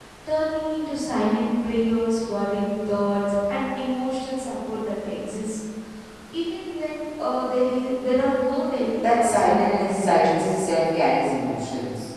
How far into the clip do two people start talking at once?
9.1 s

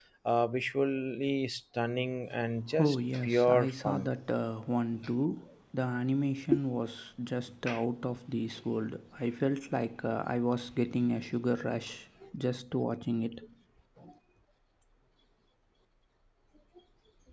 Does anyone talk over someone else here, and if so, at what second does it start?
2.8 s

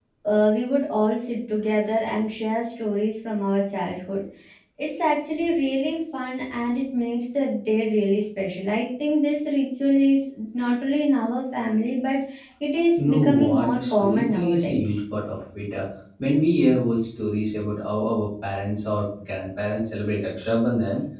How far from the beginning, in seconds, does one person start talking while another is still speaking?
13.1 s

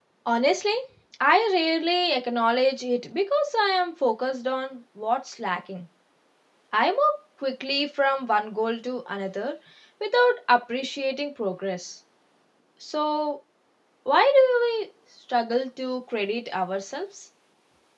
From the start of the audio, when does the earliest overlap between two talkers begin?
none

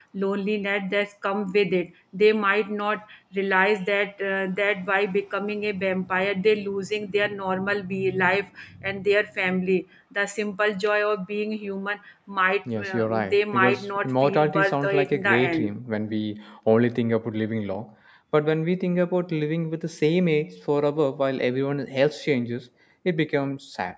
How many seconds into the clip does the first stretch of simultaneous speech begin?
12.7 s

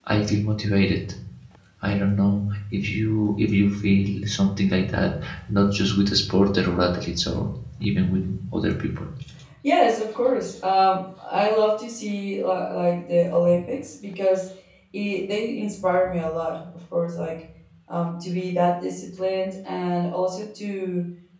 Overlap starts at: none

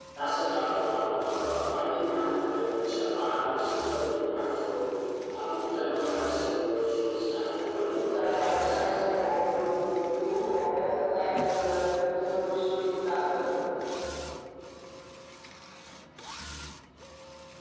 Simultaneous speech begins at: 8.0 s

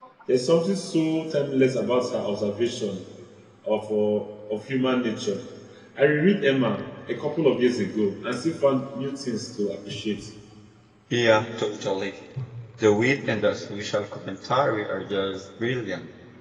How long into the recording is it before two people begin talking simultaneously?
none

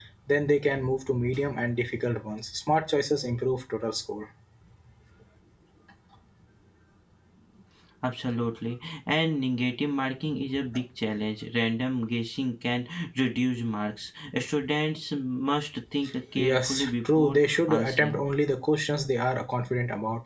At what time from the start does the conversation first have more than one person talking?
16.4 s

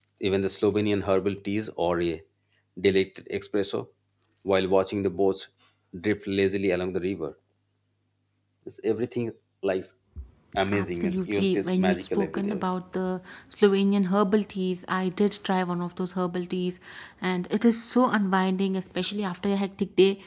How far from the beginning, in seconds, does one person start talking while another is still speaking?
10.7 s

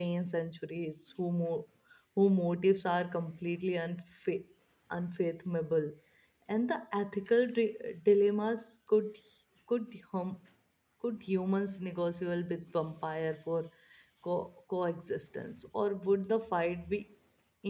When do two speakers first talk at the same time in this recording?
none

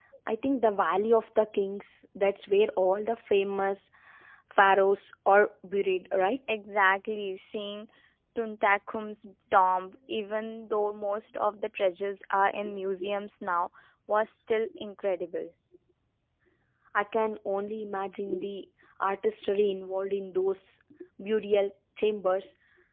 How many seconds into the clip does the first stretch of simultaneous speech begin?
none

